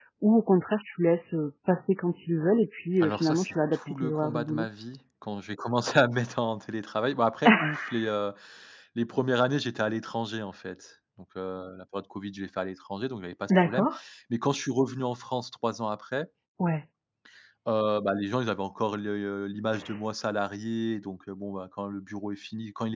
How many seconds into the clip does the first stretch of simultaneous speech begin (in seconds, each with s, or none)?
3.0 s